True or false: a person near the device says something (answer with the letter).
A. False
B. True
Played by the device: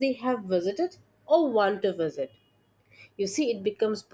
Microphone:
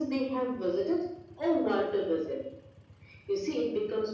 A